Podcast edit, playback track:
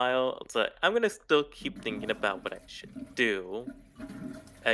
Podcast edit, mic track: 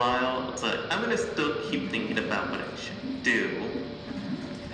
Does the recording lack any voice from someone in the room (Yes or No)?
Yes